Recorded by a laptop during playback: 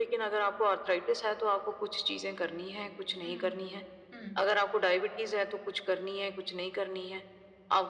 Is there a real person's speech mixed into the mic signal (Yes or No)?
Yes